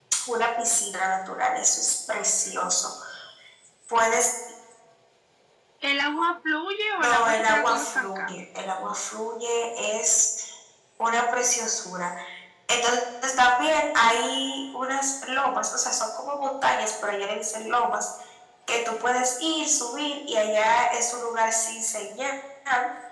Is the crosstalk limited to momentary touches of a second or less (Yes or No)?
No